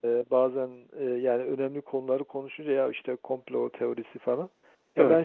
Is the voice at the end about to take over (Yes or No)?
No